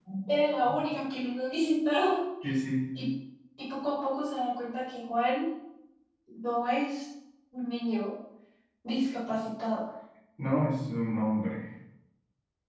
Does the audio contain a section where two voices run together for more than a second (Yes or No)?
No